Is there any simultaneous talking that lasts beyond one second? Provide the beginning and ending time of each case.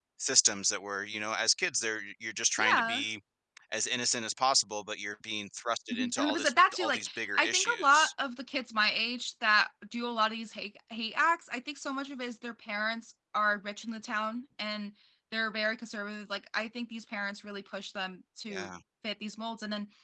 5.9-8.1

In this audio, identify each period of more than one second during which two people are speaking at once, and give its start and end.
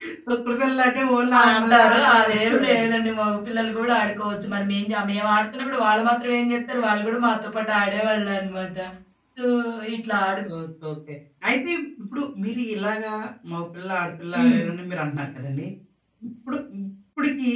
1.4-2.9

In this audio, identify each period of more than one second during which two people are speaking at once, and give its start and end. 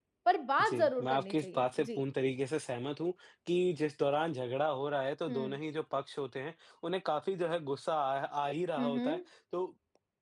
0.6-2.0

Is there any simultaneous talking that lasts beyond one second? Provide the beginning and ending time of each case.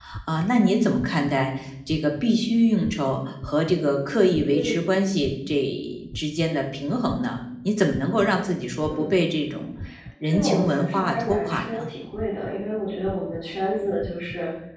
10.2-11.9

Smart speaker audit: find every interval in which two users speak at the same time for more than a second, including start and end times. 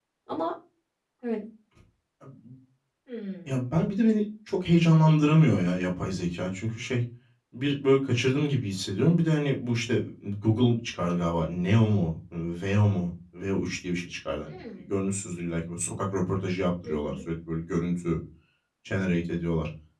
none

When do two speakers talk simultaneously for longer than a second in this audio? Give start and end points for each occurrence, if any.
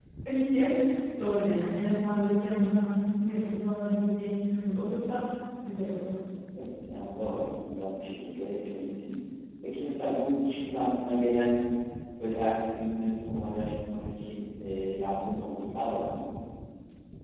none

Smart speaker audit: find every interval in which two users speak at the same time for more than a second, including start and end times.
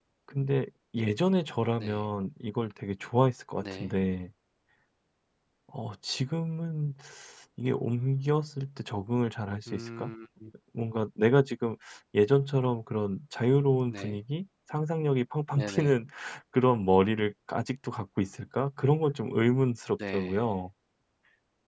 none

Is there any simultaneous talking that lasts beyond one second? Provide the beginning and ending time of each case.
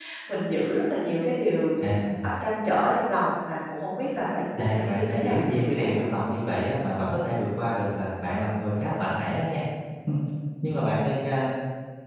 4.6-5.9

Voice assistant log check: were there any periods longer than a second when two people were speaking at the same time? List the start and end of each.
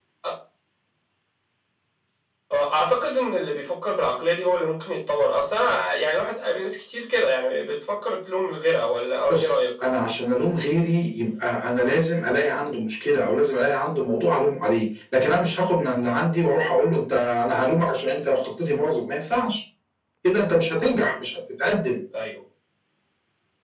none

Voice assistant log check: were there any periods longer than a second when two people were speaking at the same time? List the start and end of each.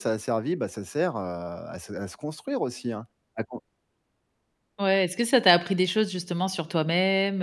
none

